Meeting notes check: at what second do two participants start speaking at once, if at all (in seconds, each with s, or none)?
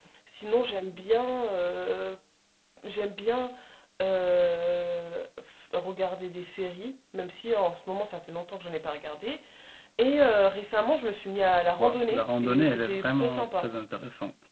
11.7 s